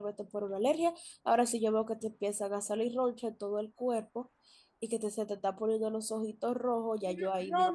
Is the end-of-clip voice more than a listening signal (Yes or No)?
Yes